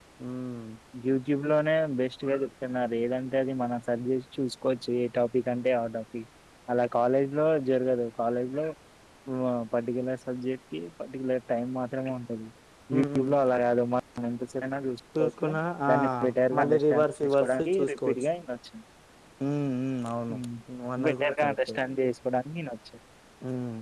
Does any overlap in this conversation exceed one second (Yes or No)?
Yes